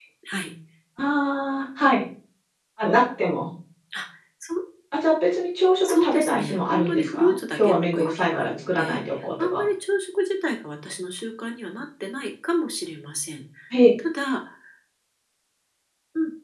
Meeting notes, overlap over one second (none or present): present